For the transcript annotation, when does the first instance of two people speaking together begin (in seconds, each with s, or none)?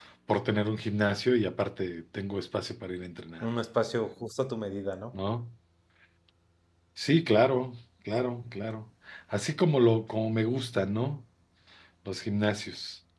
none